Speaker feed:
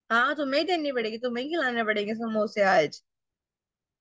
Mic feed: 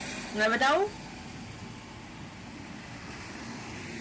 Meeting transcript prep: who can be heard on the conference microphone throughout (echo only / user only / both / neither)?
user only